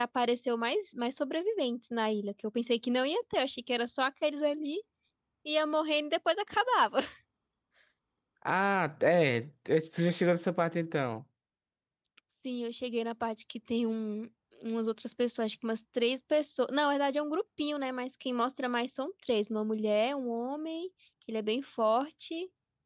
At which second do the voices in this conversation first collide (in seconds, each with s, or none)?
none